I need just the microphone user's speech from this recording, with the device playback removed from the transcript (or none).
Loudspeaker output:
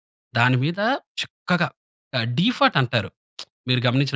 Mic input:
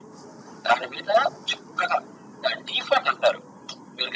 none